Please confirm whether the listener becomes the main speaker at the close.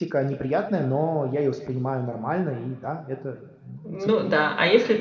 Yes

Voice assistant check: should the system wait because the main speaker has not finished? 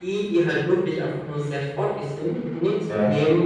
Yes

